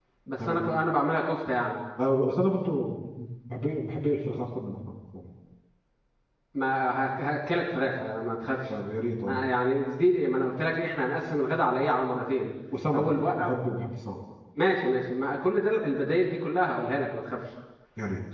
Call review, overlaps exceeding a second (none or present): none